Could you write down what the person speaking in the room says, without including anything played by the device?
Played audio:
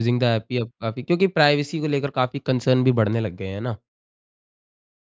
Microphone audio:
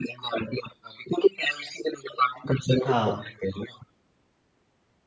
हाँ,

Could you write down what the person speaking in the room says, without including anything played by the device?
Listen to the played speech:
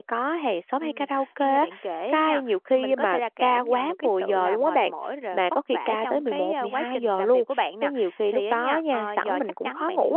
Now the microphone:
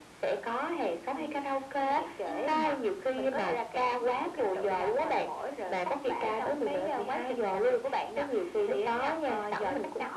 ừm,

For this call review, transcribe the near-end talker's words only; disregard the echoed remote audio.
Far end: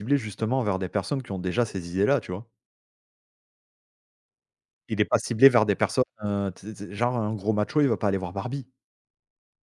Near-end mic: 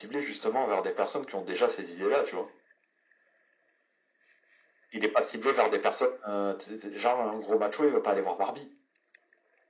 none

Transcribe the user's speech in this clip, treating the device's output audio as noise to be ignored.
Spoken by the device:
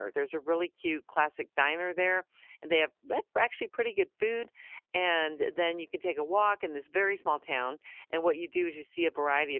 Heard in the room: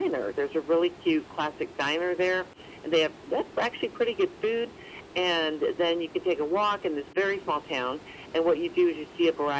none

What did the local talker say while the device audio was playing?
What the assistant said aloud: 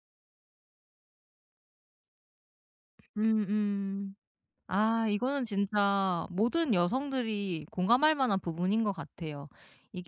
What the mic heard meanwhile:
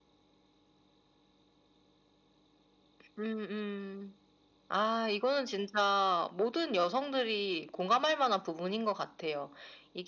none

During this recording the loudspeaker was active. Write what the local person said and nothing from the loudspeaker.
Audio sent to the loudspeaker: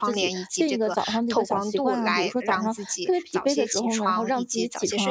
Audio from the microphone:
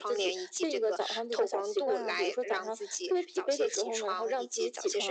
none

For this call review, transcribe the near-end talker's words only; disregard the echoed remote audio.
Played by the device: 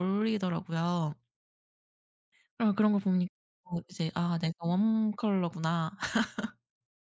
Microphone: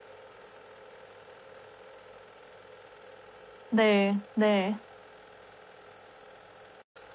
네. 네.

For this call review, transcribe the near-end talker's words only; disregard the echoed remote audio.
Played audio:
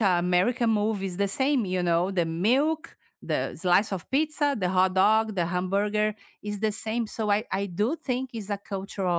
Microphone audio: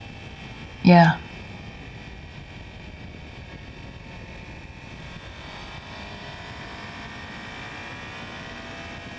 yeah,

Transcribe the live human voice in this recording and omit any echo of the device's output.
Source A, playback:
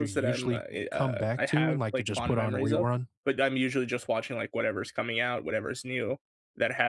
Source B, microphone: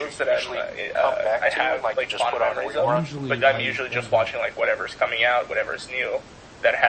usually I end up

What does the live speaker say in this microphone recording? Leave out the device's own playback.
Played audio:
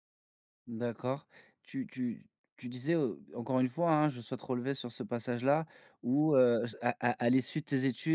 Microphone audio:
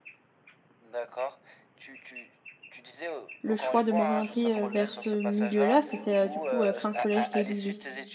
le choix de m'orienter, heu, vers ce milieu-là, c'était, heu, du coup, heu, fin collège, début lycée.

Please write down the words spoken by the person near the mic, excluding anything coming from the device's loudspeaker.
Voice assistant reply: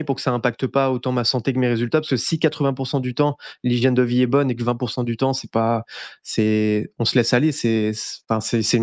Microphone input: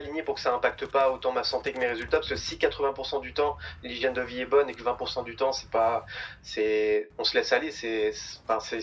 none

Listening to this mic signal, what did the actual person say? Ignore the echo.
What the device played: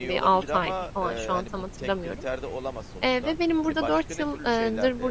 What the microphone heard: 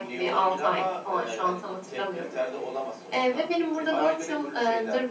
none

